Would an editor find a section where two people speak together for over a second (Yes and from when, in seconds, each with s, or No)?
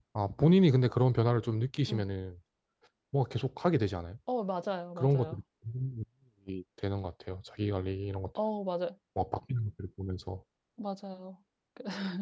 No